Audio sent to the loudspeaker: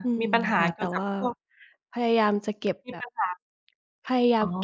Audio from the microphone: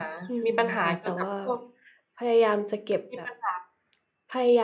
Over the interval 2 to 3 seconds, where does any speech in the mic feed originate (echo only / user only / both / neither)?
echo only